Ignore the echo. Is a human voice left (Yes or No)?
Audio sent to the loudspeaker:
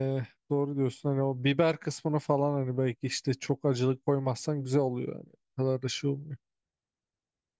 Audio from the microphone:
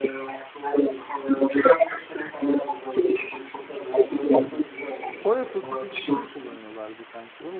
Yes